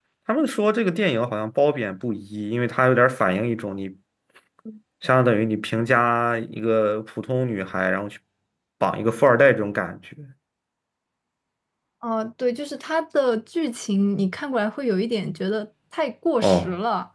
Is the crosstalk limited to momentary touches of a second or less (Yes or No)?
Yes